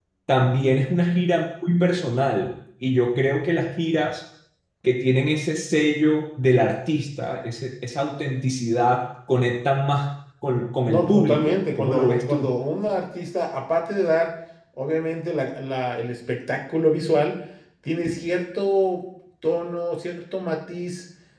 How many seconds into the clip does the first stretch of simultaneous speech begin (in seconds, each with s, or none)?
10.9 s